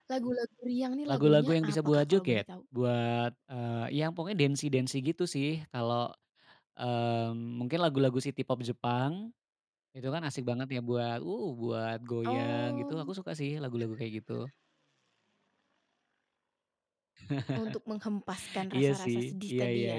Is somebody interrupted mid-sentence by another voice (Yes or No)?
Yes